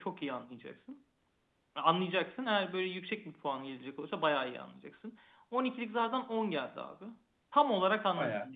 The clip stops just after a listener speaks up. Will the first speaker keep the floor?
Yes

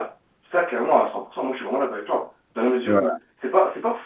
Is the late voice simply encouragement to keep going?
Yes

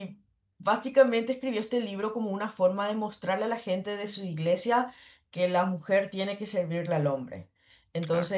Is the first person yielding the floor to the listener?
No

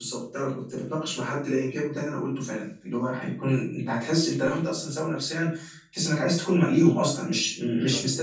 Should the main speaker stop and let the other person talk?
No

